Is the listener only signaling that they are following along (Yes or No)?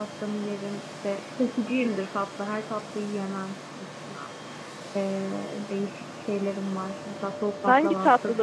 No